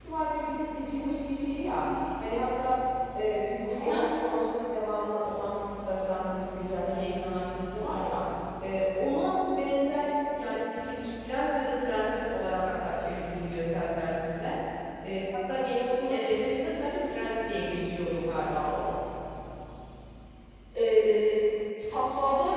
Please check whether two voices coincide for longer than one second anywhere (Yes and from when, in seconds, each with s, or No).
No